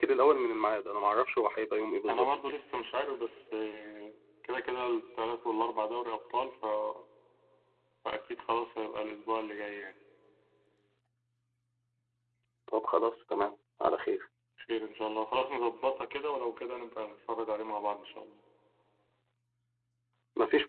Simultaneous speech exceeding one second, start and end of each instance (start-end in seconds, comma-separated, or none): none